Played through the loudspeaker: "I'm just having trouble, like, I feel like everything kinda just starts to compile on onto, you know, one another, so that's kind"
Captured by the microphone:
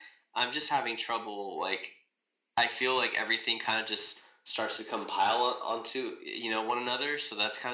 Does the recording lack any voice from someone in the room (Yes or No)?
Yes